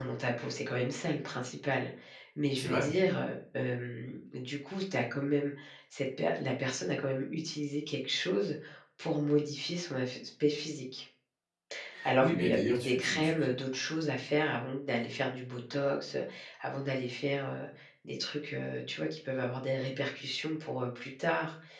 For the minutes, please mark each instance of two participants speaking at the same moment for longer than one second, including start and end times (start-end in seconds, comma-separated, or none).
12.2-13.5